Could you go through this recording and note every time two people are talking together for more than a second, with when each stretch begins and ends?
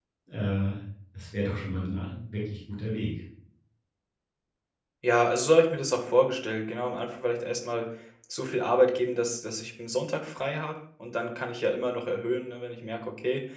none

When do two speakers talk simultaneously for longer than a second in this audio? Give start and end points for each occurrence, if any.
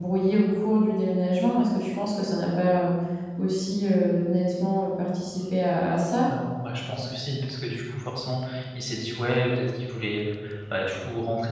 none

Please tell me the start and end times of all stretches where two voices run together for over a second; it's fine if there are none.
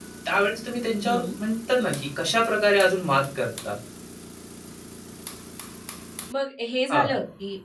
none

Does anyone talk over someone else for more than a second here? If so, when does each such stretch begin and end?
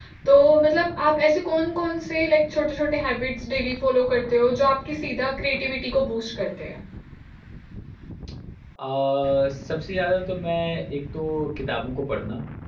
none

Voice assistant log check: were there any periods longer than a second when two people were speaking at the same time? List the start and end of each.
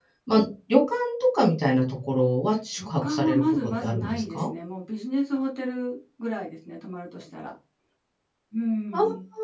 2.7-4.5

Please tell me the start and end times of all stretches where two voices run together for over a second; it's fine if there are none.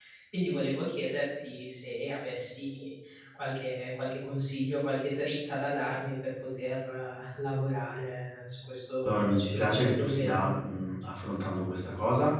9.0-10.5

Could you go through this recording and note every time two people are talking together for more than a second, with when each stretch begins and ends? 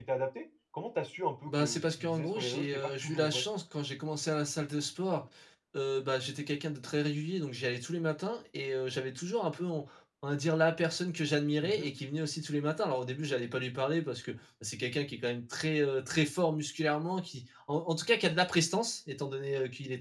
1.5-3.4

